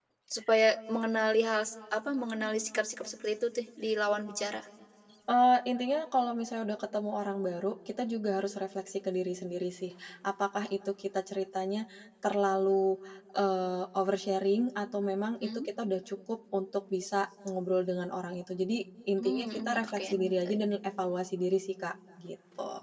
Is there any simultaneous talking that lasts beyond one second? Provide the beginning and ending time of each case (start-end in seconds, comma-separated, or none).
19.2-20.6